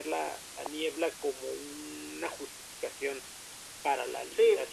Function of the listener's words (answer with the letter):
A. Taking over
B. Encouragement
A